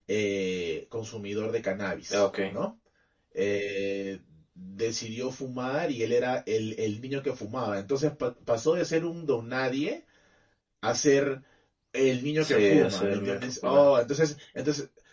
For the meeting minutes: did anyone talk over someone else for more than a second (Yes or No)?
Yes